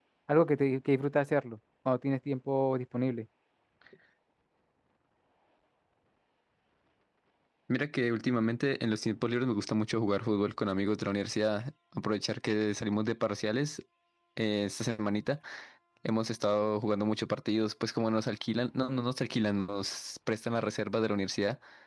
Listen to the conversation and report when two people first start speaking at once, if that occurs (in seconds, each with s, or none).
none